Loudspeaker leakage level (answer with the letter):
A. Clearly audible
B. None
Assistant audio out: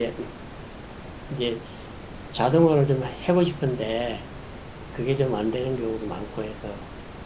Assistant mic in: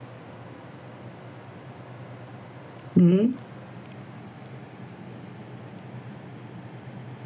B